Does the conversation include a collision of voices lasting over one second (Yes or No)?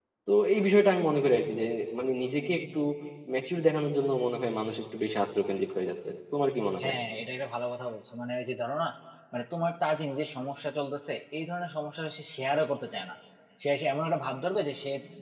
No